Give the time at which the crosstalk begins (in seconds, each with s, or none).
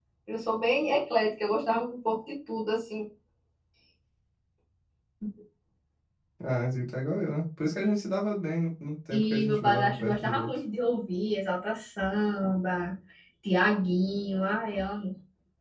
9.1 s